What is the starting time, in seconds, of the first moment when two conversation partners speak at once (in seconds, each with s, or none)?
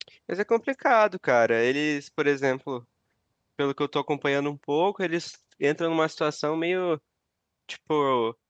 none